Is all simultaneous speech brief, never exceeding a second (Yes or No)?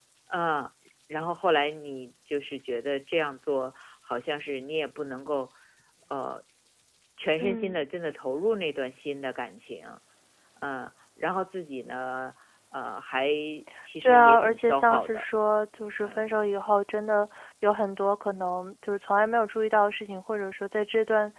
No